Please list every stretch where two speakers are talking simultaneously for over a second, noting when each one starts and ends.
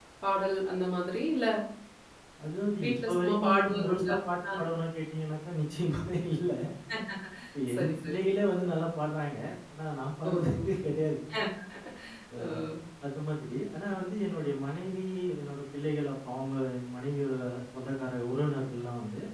2.8-4.2

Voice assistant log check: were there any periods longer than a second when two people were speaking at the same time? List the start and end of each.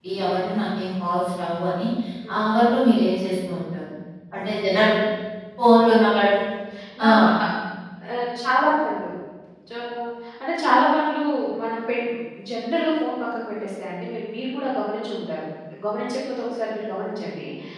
none

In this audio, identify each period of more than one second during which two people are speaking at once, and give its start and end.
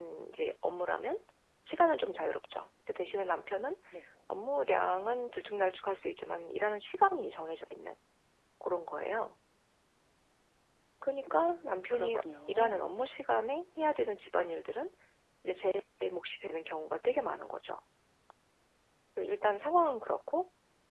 11.4-12.8

